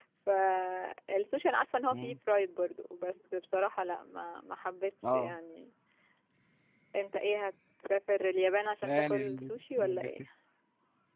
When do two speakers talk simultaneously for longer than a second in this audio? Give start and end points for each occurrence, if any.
8.8-10.1

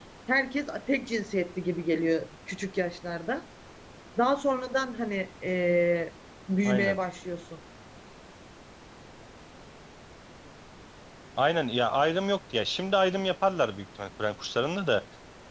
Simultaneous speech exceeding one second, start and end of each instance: none

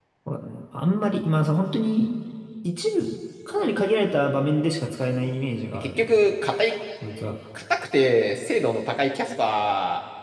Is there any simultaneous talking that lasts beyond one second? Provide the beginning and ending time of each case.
none

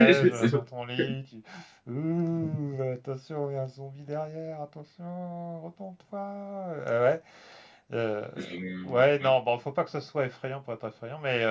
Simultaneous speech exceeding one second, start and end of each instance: none

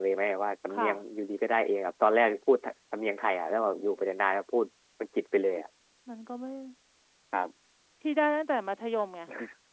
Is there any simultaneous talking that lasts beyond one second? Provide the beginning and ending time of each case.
none

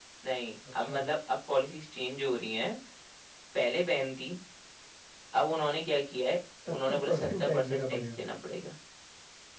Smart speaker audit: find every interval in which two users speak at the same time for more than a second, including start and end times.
6.7-8.0

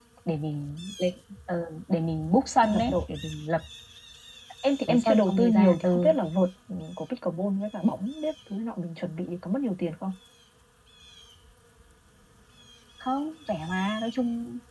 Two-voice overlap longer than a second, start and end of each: 4.9-6.1

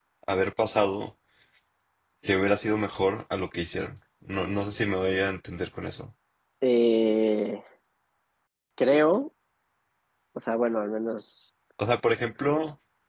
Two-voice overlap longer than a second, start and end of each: none

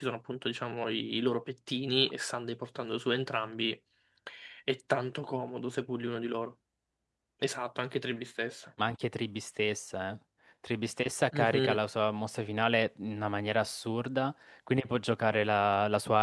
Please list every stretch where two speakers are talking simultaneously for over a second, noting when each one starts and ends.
none

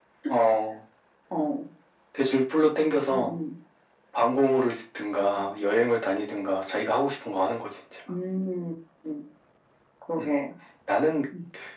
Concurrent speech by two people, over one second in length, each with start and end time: none

